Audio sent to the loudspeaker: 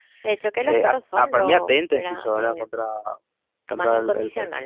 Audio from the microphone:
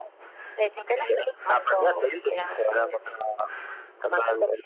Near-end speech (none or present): none